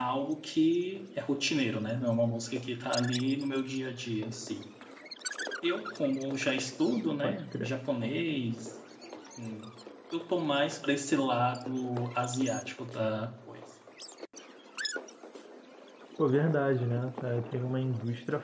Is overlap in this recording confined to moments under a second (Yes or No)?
Yes